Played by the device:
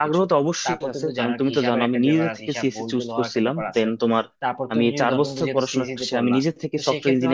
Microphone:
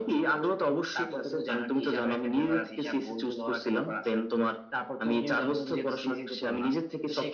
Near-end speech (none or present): none